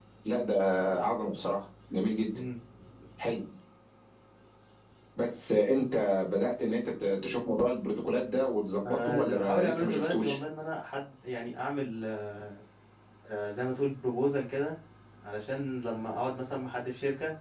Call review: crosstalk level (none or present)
present